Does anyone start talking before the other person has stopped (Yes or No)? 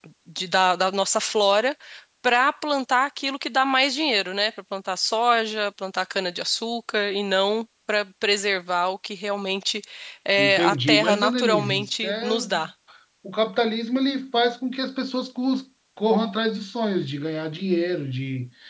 Yes